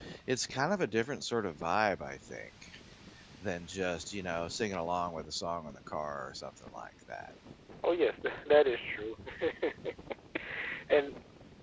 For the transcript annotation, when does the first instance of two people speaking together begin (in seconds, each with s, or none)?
none